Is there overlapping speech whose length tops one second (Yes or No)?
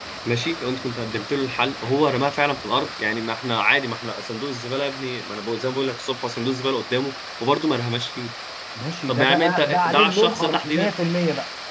Yes